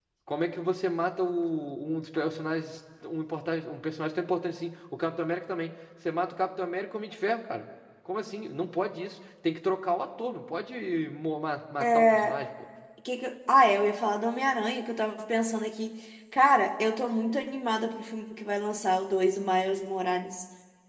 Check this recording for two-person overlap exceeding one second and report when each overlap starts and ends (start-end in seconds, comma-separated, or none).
none